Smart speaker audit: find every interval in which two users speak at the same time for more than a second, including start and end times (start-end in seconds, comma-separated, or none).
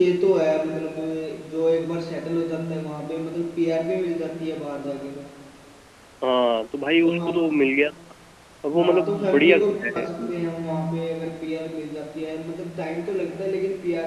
8.8-10.5